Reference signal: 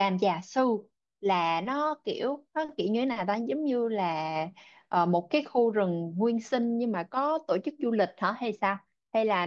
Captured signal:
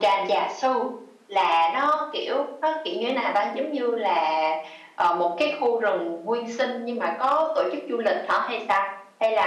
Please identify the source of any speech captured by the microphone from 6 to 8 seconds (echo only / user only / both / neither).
echo only